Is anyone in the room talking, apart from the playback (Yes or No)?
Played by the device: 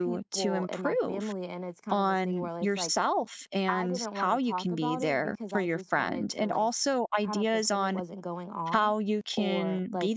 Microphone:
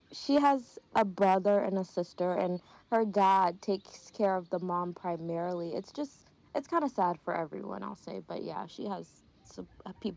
Yes